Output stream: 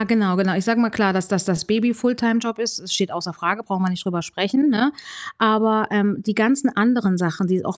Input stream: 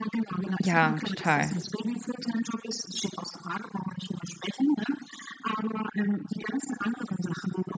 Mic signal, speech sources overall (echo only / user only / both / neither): both